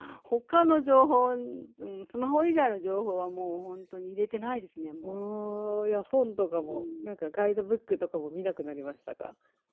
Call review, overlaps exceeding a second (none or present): none